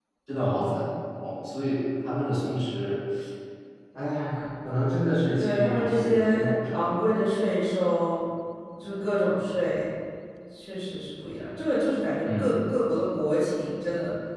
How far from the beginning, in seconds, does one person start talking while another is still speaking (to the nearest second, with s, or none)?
5 s